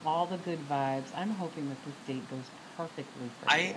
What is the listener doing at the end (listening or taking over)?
taking over